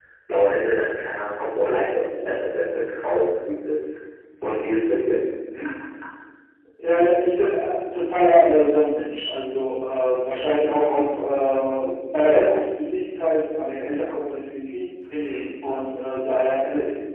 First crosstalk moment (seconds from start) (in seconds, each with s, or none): none